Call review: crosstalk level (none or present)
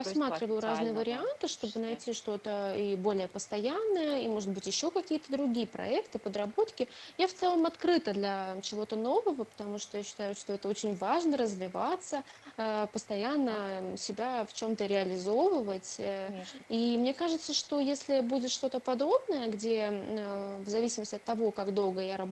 present